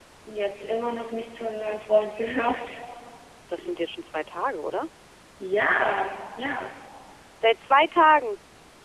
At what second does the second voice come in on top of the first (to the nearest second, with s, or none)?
none